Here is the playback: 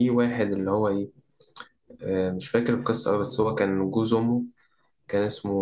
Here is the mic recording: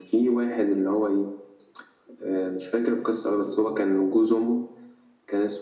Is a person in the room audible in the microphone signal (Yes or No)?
No